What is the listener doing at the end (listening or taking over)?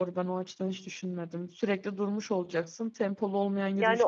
taking over